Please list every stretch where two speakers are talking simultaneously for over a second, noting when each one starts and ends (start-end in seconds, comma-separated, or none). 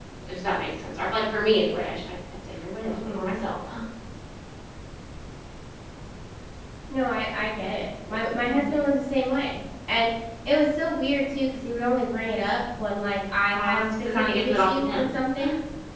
13.5-15.0